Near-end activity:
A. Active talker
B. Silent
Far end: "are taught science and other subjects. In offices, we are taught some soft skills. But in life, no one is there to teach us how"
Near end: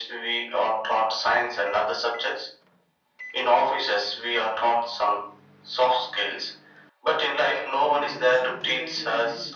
A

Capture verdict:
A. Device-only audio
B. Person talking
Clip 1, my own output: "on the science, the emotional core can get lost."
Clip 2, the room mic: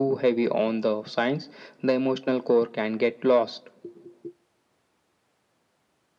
A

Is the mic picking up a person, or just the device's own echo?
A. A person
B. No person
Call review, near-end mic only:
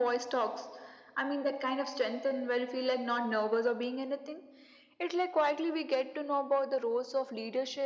B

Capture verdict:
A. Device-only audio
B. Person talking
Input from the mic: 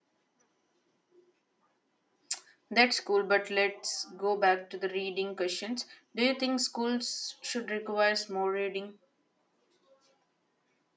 B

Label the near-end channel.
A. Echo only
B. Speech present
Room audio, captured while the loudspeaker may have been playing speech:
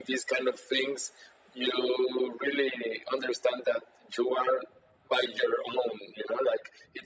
A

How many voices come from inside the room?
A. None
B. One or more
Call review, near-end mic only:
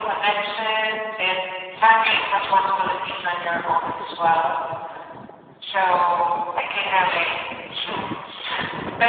A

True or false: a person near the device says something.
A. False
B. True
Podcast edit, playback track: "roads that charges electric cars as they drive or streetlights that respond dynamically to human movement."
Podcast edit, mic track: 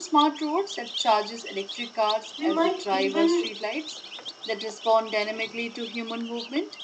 B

